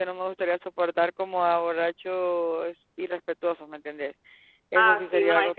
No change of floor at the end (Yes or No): No